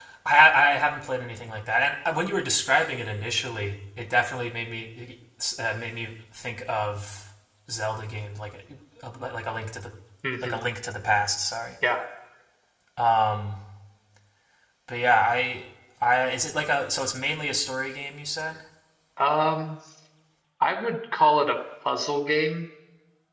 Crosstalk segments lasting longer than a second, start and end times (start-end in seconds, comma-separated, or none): none